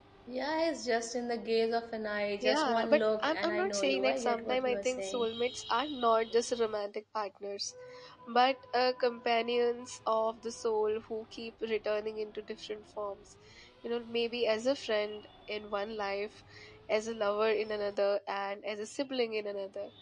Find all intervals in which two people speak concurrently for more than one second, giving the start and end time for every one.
2.4-5.3

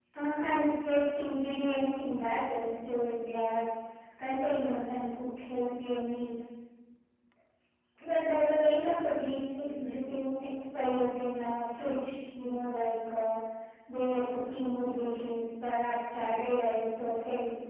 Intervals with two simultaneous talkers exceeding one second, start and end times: none

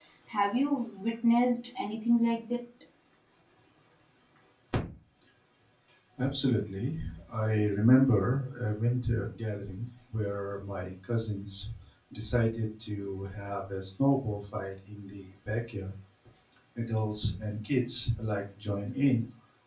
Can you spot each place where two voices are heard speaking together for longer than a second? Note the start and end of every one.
none

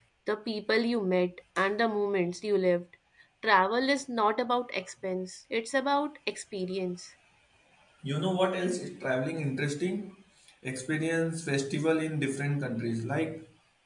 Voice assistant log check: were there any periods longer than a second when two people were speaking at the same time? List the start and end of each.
none

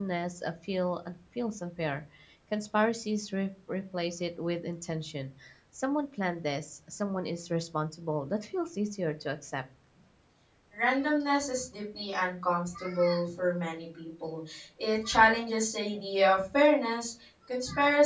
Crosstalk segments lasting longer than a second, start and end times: none

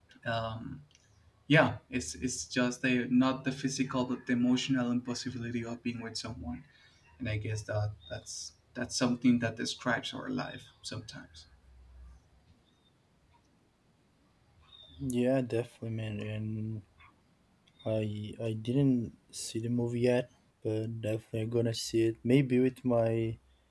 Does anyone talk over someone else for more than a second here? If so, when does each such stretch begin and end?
none

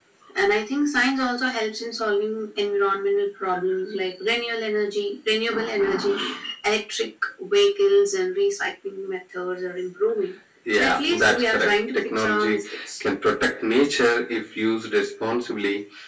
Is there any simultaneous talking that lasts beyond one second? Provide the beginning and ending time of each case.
10.7-12.6

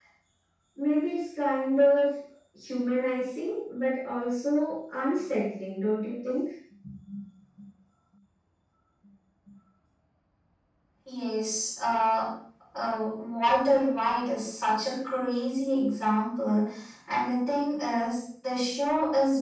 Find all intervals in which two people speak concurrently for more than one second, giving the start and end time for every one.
none

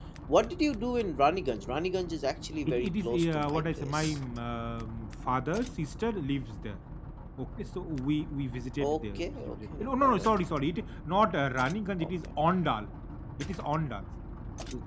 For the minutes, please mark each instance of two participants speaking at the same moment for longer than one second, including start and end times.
2.6-4.2, 8.8-10.3

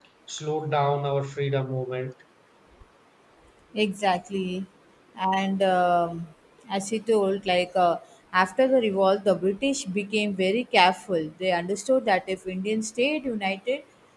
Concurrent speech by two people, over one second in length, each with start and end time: none

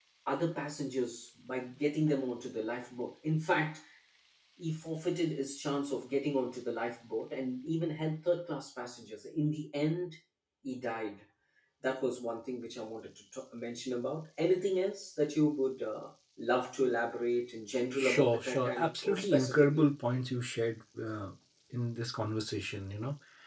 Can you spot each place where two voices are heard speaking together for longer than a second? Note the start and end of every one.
17.9-19.9

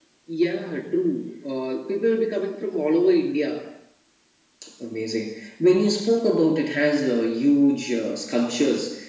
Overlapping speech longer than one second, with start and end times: none

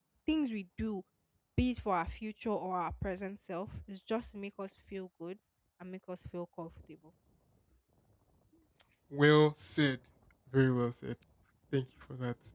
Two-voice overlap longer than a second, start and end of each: none

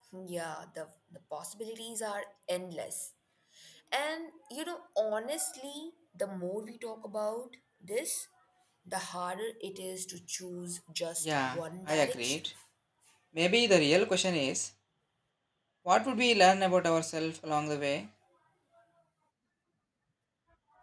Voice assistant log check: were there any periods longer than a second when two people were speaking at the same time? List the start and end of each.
11.2-12.5

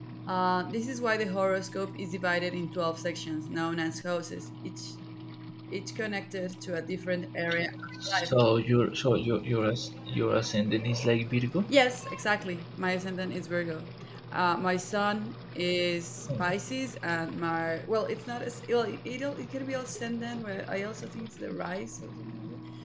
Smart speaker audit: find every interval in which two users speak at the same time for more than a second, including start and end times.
none

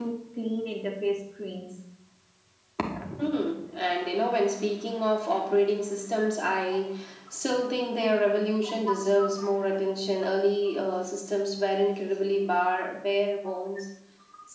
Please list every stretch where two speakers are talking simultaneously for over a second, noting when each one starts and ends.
none

